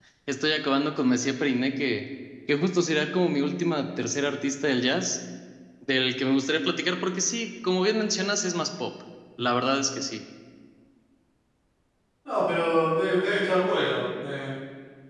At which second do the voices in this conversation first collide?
none

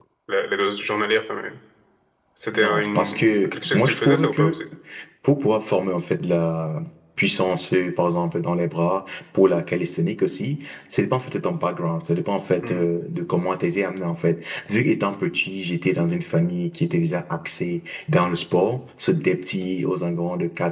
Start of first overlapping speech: 3 s

